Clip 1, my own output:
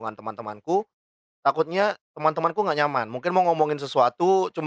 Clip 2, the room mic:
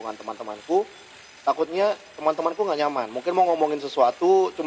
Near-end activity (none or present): none